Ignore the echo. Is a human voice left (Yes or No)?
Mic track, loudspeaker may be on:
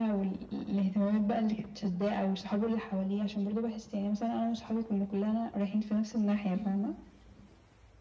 Yes